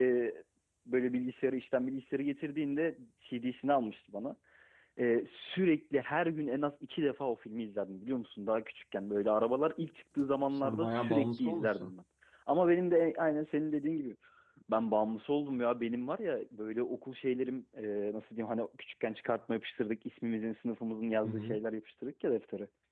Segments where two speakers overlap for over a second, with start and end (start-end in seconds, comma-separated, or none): 10.6-11.9